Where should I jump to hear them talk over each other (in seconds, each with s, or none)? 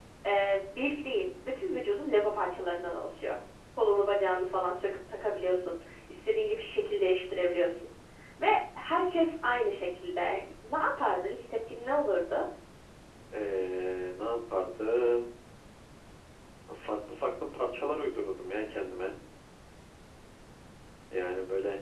none